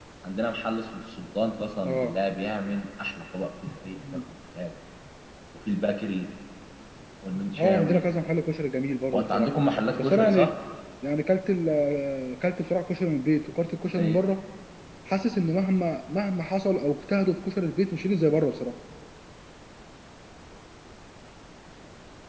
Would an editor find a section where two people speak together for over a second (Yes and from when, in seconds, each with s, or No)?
No